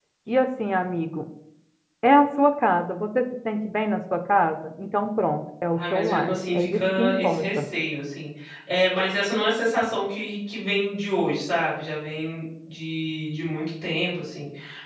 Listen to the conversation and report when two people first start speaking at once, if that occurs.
5.8 s

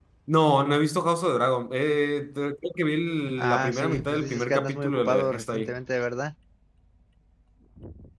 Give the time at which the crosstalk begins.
3.4 s

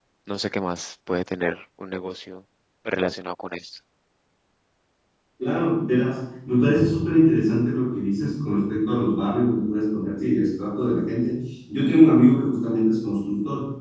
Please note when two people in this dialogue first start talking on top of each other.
none

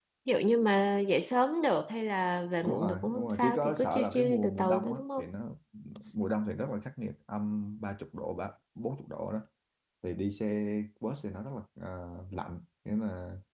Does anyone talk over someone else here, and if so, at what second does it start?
2.6 s

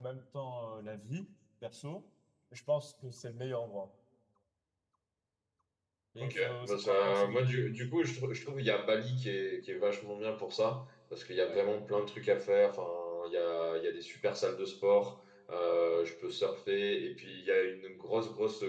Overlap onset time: 6.2 s

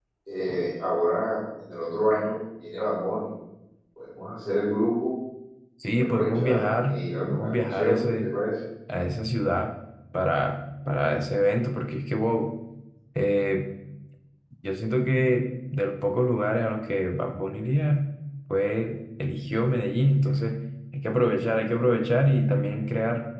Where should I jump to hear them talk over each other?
6.0 s

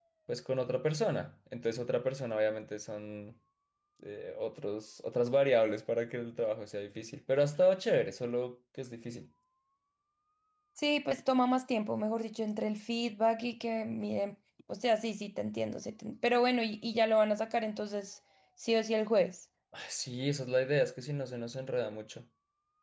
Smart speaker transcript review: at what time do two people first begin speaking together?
none

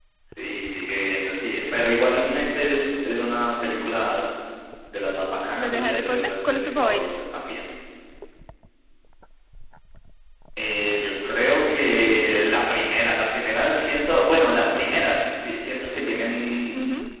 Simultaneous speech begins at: 5.5 s

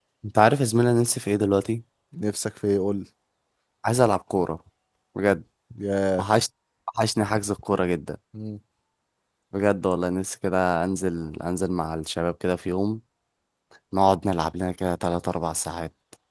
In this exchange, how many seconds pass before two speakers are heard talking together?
none

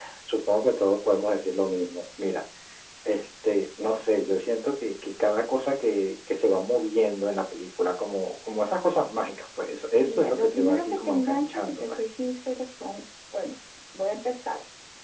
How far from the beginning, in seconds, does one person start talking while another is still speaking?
10.1 s

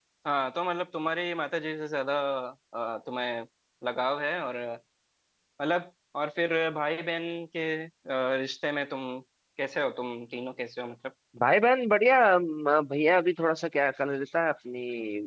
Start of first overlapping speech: none

